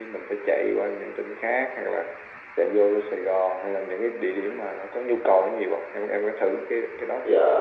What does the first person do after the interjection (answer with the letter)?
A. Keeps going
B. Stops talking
B